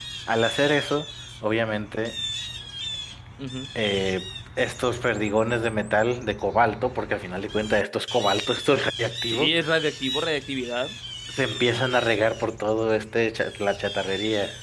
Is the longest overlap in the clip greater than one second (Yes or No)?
No